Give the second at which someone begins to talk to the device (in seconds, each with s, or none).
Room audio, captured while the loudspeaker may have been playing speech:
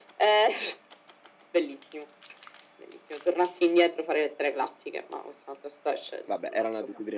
6.3 s